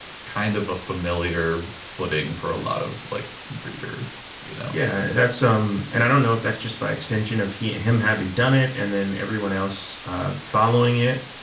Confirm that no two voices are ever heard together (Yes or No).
Yes